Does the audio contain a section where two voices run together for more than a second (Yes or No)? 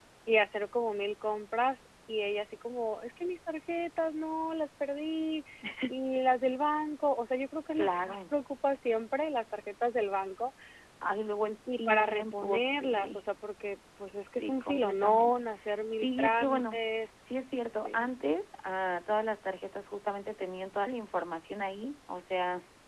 Yes